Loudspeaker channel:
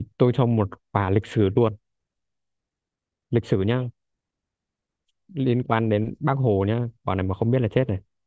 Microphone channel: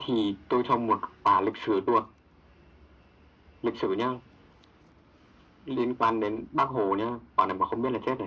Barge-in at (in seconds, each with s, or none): none